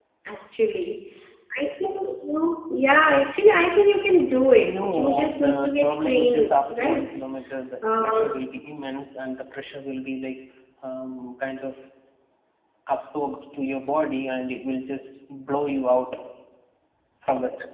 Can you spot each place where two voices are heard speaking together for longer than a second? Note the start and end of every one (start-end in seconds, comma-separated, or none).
4.6-7.1